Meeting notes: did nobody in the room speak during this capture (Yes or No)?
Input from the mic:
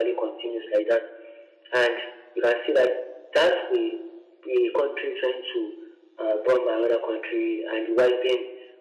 Yes